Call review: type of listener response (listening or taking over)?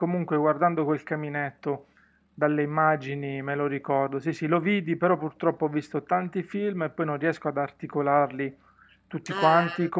listening